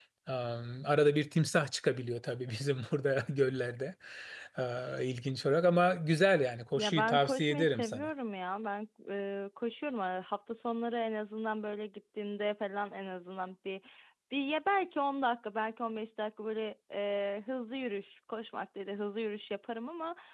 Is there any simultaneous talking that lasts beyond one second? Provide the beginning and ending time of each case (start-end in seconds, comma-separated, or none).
6.8-8.1